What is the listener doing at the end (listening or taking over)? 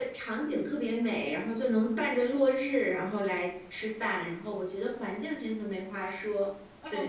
taking over